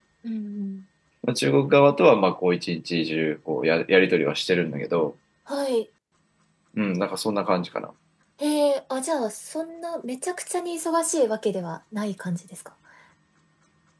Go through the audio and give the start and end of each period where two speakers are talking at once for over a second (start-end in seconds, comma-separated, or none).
none